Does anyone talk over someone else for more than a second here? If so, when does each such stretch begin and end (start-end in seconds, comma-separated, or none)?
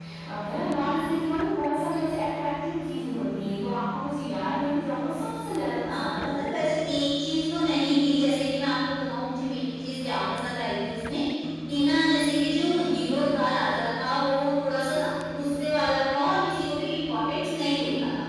none